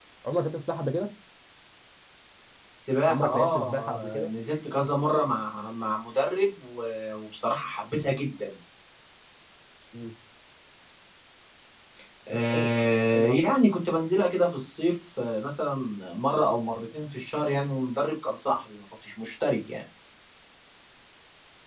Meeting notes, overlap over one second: present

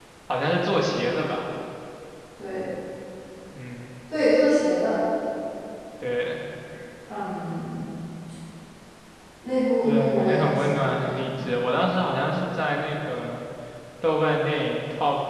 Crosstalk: present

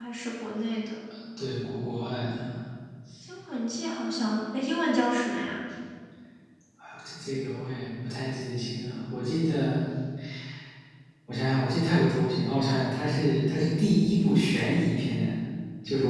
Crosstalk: none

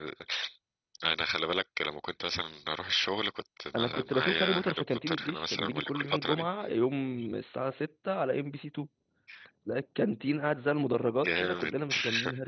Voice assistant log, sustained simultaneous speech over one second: present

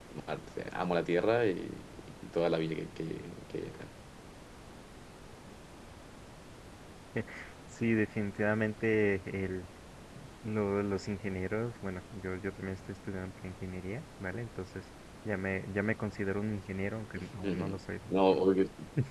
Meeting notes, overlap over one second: none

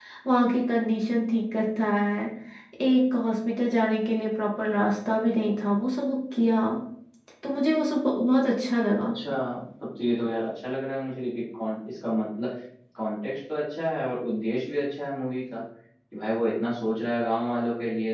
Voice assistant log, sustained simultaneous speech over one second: none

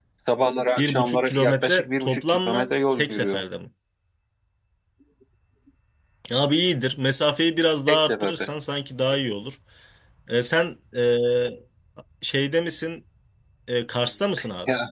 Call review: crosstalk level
present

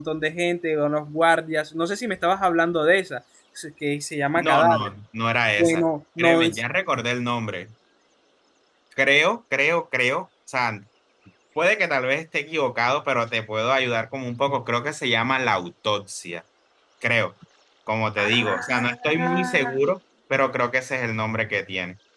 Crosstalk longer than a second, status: present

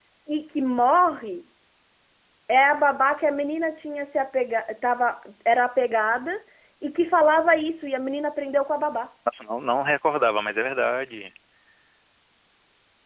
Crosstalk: none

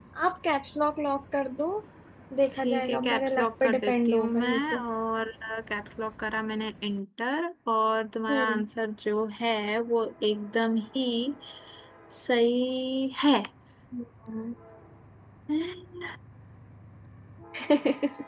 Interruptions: present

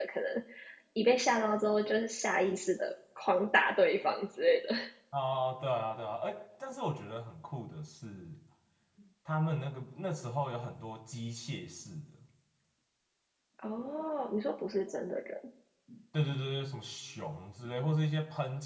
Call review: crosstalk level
none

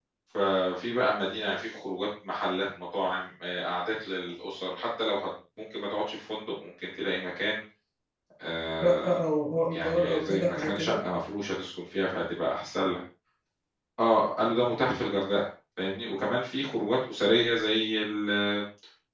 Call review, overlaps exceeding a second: present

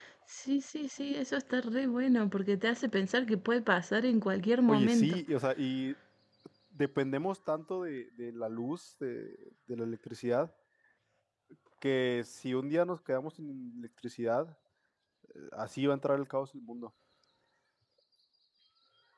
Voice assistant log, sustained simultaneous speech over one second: none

